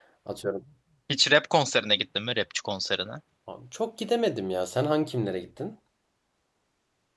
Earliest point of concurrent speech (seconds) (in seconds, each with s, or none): none